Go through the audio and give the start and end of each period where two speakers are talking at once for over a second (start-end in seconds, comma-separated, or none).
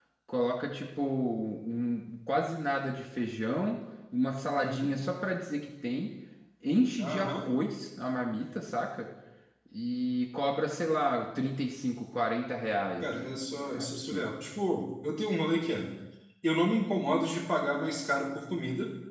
13.0-14.3